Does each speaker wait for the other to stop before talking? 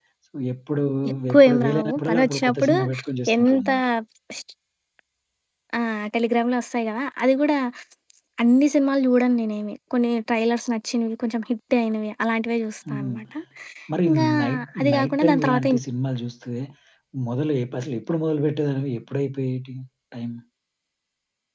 No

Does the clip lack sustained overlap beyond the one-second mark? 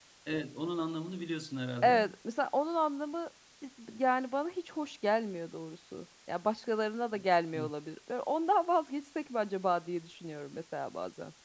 Yes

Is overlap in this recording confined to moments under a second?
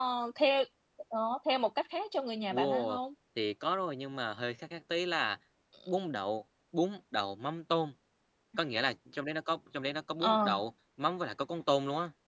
Yes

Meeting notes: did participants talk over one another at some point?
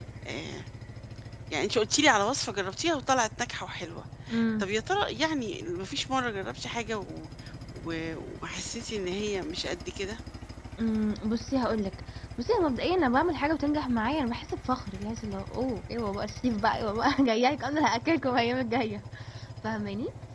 No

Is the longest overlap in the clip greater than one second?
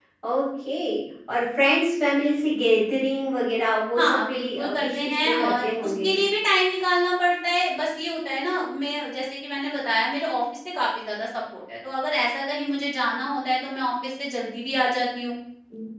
Yes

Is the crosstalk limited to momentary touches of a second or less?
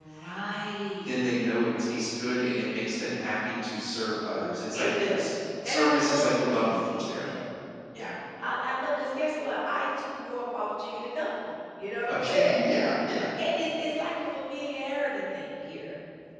No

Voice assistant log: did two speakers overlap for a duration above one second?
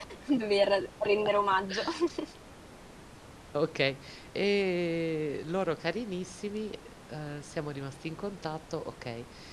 No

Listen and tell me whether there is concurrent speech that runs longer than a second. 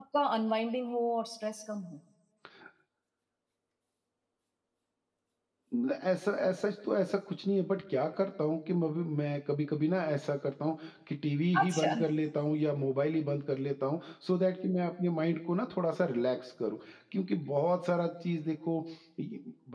No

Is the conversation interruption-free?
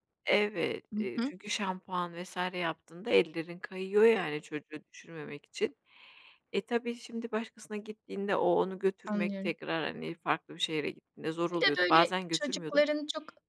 No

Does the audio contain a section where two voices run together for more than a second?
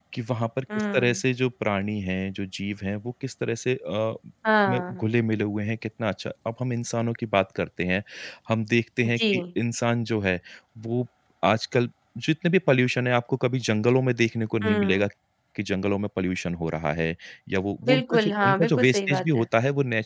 Yes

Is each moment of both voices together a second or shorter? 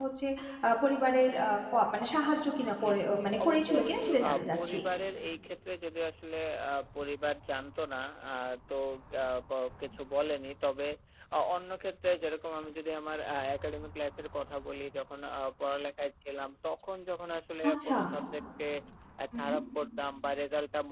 No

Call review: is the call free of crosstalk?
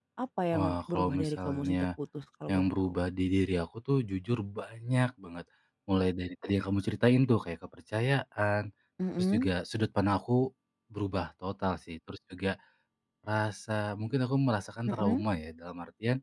No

